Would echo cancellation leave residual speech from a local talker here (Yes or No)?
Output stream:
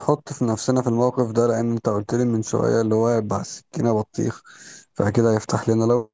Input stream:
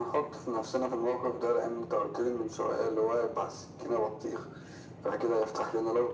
No